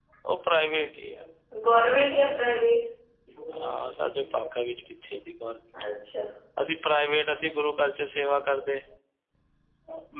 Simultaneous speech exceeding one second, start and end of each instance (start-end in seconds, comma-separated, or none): none